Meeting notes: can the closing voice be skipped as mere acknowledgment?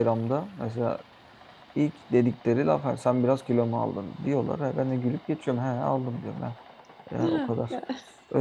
Yes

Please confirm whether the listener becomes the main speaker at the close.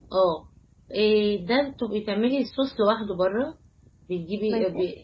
No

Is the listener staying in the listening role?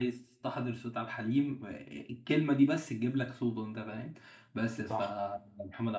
Yes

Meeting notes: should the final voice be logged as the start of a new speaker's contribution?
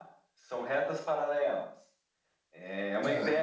No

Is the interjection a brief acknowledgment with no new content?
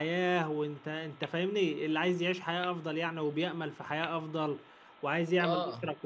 Yes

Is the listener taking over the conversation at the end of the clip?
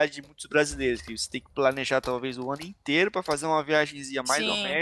No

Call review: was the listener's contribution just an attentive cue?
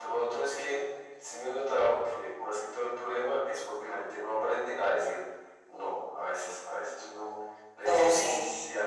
Yes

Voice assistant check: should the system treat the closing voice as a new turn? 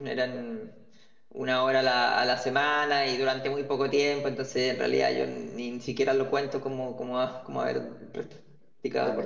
Yes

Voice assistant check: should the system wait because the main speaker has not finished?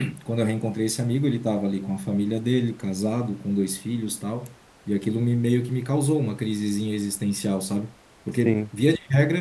Yes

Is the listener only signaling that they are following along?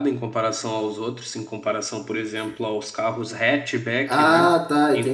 No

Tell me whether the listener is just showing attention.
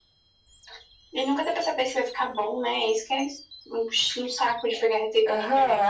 No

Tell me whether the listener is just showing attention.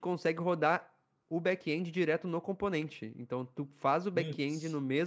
Yes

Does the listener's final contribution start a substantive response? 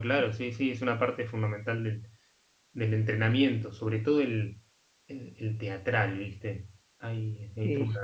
No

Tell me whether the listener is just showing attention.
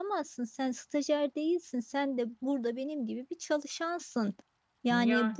Yes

